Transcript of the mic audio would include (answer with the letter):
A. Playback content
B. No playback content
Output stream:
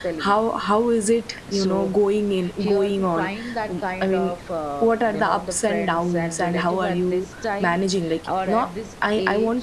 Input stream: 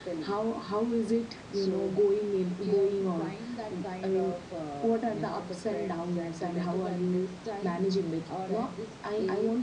A